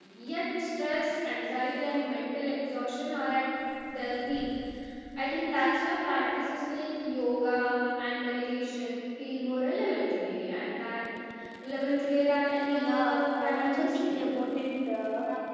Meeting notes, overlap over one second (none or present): present